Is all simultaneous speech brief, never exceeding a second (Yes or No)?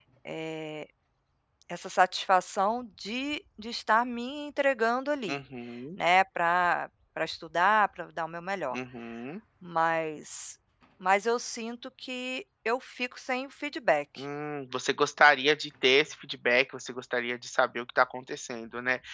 Yes